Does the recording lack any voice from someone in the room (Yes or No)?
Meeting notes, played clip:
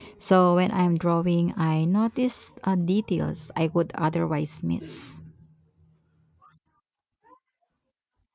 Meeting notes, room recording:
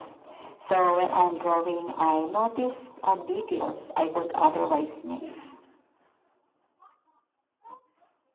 Yes